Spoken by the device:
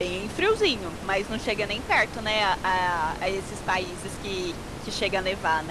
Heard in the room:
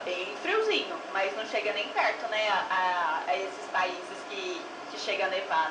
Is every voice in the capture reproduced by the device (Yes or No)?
Yes